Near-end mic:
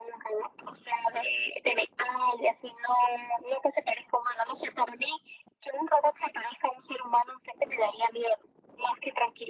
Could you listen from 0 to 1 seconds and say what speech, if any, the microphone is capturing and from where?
echo only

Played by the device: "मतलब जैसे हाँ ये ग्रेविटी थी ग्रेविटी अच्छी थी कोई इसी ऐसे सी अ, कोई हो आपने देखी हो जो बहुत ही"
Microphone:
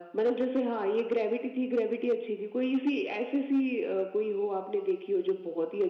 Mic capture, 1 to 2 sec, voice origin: echo only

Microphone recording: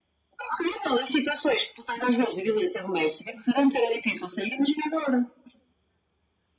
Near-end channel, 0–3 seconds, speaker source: echo only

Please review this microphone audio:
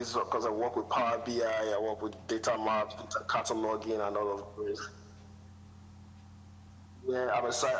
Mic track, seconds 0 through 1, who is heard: echo only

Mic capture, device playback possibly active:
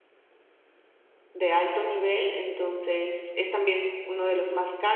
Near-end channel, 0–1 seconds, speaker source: neither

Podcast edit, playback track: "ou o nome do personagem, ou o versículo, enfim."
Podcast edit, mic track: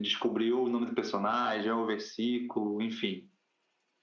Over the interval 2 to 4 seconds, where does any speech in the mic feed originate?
echo only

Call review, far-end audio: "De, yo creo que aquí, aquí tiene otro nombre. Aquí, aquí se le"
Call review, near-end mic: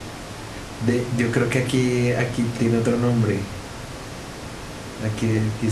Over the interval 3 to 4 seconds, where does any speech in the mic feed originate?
echo only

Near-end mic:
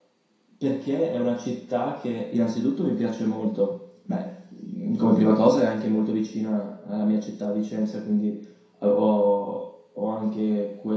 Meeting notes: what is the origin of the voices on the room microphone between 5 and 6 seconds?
user only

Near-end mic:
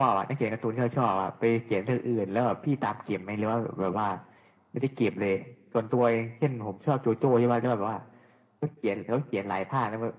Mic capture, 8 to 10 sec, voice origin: echo only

